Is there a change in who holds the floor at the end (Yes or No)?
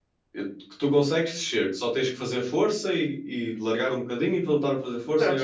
Yes